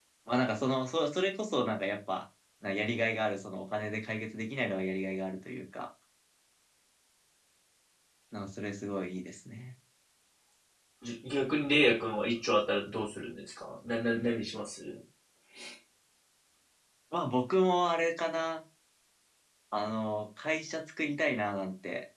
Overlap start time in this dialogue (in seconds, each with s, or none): none